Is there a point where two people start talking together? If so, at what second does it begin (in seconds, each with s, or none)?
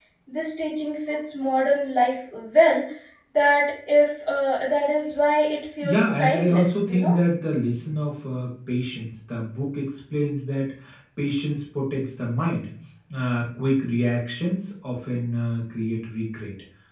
5.8 s